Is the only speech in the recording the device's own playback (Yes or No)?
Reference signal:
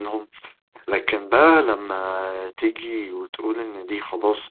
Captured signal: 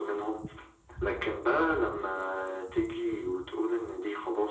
Yes